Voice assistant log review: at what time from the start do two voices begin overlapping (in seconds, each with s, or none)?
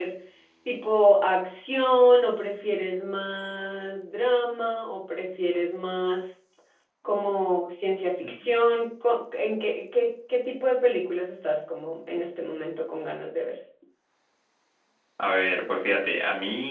none